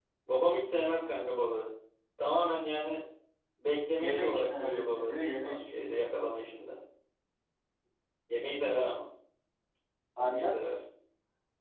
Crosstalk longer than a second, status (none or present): present